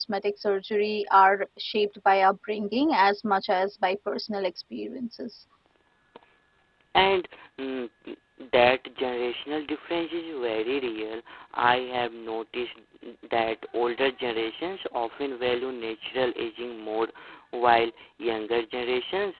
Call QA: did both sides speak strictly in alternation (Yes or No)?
Yes